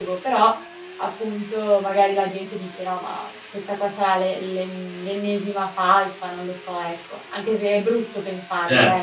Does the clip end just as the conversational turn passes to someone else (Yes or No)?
Yes